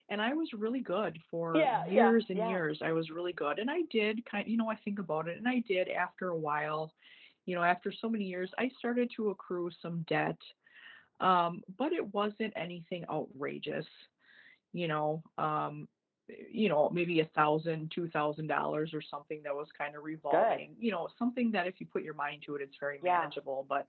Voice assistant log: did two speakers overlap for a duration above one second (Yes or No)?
Yes